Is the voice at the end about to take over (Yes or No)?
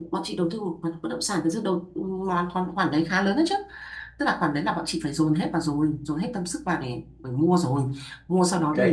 No